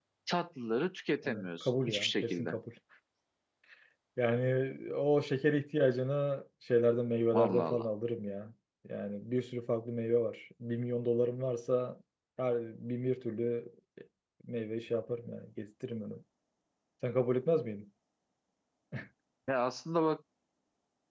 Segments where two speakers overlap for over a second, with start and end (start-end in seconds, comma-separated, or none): 1.2-2.6